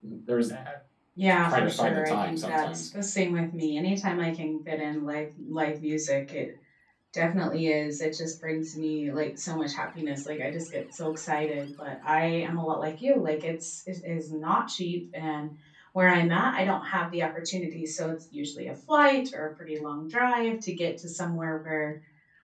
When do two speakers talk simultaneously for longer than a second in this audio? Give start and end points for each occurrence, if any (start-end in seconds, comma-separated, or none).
1.4-2.8